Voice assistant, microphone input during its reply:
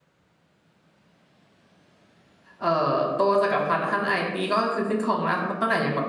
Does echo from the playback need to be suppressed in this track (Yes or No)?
No